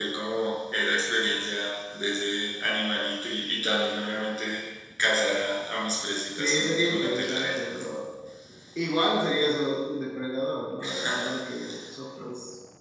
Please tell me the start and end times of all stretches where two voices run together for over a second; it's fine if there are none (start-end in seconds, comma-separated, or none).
6.4-7.7